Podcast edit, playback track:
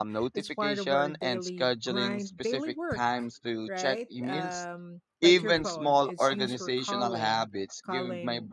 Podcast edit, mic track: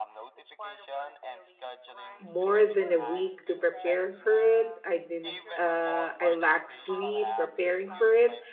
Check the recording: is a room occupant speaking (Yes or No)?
Yes